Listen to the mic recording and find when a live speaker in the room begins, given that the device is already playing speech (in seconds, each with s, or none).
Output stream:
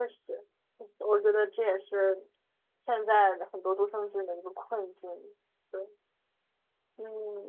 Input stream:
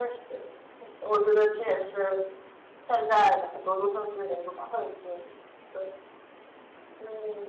none